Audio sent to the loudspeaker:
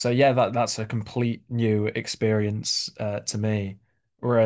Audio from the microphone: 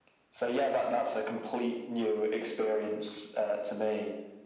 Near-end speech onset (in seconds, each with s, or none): none